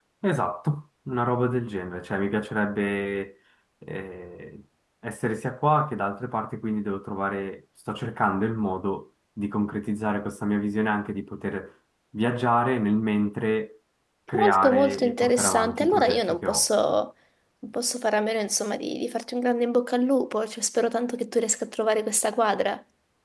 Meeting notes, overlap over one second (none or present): present